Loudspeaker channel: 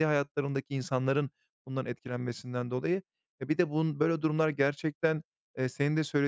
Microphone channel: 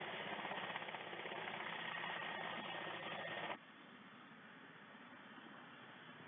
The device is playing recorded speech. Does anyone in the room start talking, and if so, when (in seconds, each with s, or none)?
none